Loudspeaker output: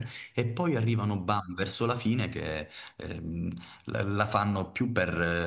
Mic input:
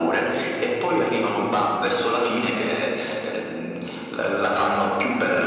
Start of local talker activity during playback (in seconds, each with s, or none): none